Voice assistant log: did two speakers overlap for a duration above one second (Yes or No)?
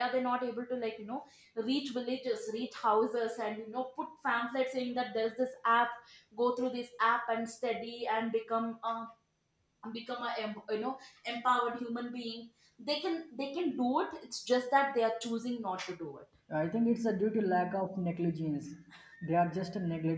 No